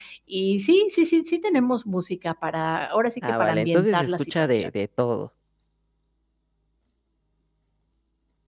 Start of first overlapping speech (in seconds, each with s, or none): 3.2 s